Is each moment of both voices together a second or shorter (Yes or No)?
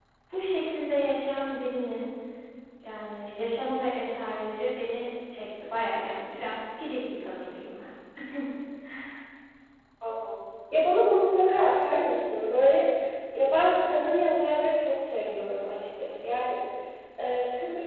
Yes